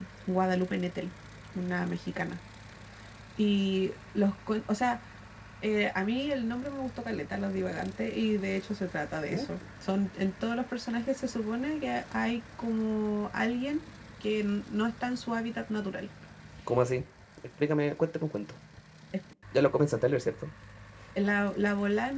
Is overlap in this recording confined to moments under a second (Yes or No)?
Yes